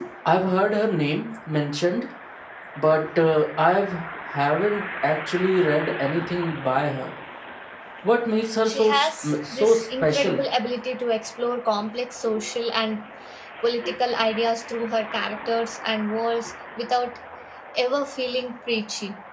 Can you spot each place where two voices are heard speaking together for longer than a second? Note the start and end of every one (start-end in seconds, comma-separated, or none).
8.7-10.4